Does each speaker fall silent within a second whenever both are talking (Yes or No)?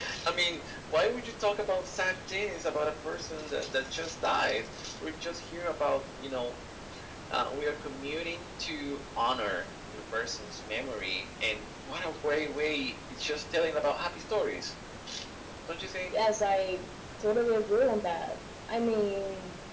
Yes